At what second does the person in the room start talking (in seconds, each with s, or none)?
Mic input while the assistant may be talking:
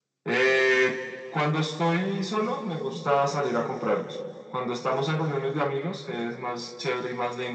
none